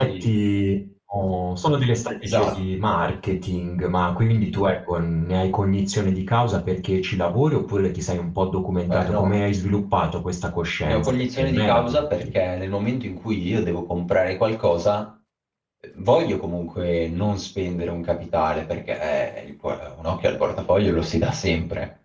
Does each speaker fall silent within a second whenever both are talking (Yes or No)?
No